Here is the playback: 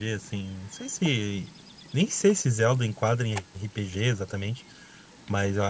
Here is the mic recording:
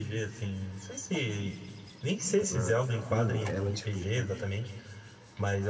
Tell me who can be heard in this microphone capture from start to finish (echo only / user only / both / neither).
both